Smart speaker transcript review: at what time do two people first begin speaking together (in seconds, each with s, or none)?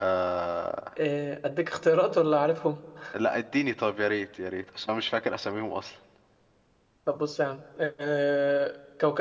none